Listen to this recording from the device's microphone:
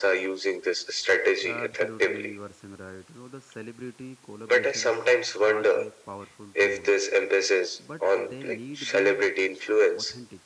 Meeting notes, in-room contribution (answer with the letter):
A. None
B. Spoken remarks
B